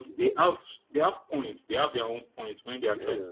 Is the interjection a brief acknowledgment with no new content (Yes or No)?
Yes